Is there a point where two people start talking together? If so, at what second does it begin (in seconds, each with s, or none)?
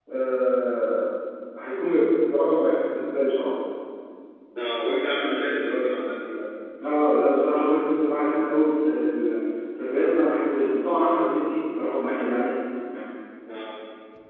none